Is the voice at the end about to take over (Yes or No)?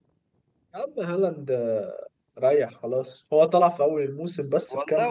Yes